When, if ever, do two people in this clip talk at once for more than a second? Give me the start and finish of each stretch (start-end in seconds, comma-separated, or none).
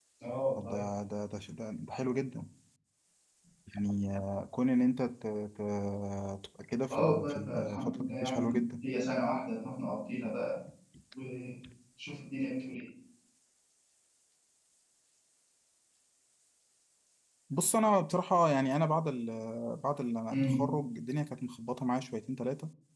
6.9-8.7